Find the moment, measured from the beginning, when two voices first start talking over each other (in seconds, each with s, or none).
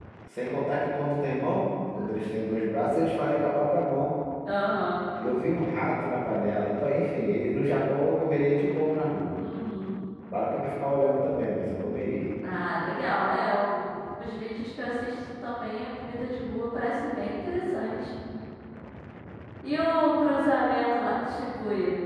none